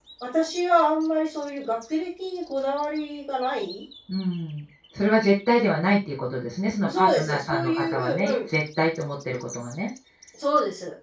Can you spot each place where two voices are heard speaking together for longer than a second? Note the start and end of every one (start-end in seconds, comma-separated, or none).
6.9-8.5